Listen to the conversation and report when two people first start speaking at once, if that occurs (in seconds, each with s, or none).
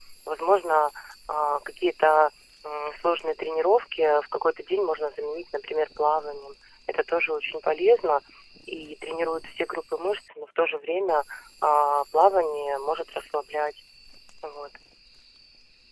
none